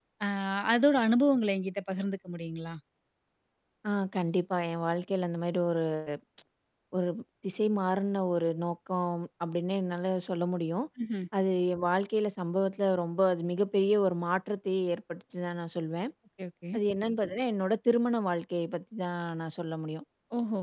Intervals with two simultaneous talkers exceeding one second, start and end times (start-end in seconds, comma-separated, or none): none